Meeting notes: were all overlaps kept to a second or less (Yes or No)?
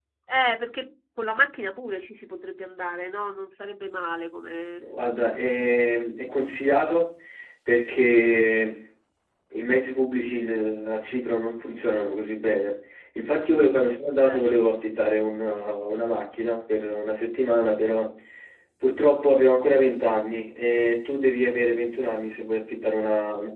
Yes